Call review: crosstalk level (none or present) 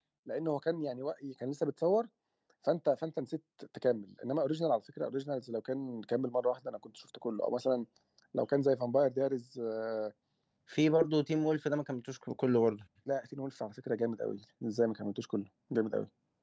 none